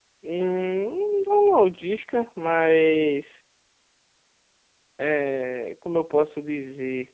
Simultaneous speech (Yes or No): No